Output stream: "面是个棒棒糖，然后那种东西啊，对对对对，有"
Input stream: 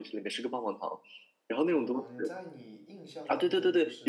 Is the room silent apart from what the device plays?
No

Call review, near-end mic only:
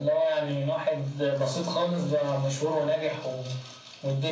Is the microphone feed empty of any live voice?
Yes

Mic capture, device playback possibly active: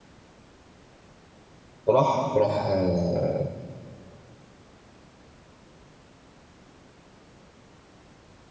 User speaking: Yes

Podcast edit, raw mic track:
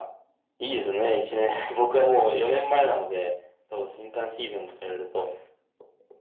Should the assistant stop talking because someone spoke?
No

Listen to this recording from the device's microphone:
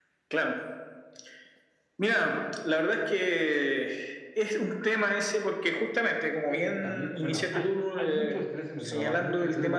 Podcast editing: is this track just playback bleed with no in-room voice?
No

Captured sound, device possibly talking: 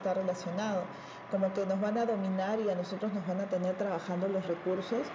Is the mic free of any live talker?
Yes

